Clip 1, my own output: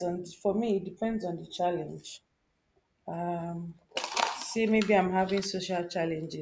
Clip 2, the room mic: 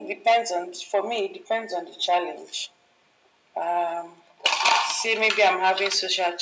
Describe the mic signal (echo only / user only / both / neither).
echo only